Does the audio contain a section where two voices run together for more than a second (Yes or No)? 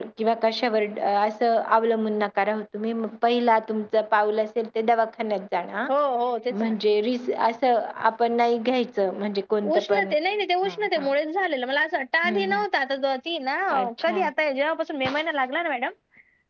No